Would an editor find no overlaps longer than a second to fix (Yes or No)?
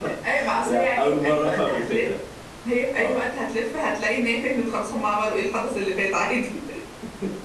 No